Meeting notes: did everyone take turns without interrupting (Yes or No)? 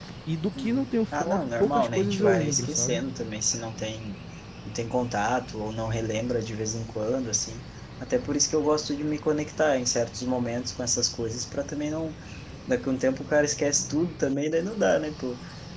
No